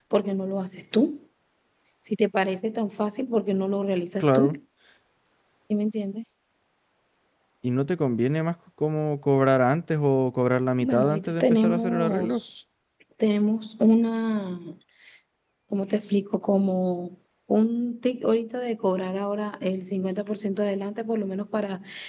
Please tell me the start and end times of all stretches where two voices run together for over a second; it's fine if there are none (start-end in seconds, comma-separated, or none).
10.8-12.4